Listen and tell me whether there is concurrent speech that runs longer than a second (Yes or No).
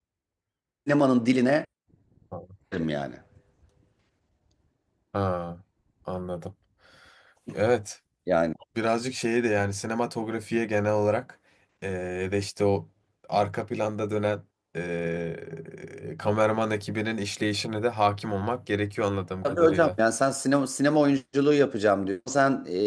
No